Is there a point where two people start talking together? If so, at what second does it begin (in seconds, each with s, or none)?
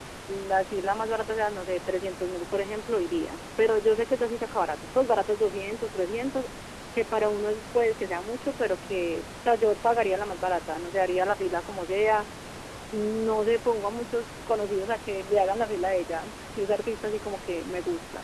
none